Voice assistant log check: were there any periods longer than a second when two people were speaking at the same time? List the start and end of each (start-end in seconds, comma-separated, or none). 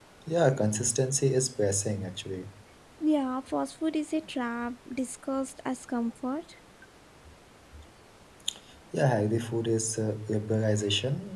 none